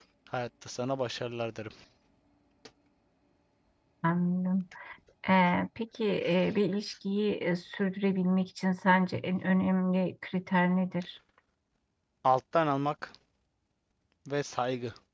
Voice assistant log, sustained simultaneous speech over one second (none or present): none